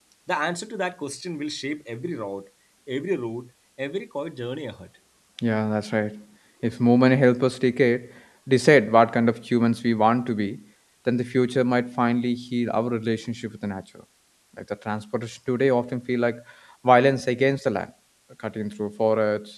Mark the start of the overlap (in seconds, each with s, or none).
none